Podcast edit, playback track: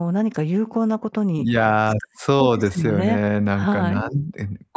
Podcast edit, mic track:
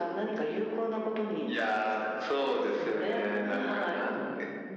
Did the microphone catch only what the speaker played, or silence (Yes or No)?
No